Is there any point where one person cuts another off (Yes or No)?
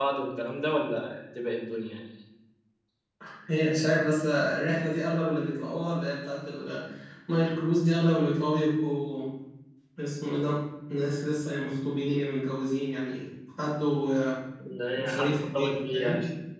Yes